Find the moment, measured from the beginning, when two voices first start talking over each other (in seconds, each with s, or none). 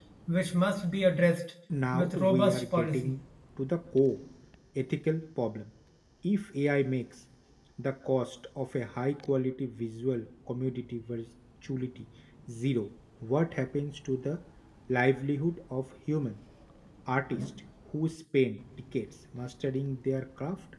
1.9 s